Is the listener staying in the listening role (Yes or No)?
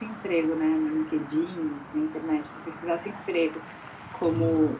Yes